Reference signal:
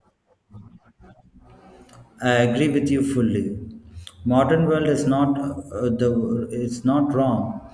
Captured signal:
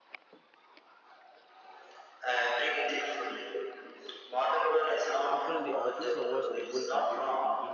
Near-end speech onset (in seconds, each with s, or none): 5.3 s